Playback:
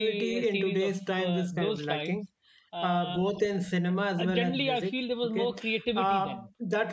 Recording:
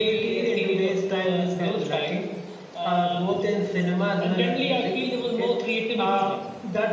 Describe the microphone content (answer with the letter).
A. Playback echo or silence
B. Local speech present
A